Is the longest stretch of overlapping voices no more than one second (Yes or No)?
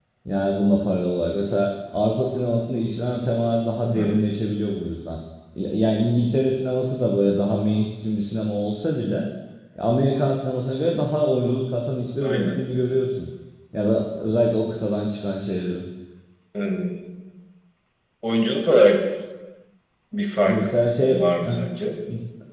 Yes